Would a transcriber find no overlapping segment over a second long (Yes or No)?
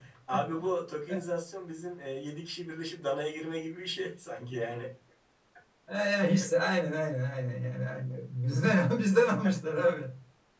Yes